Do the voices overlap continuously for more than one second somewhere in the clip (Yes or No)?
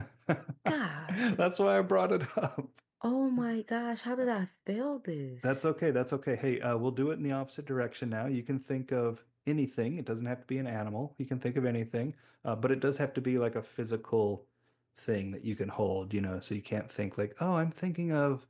No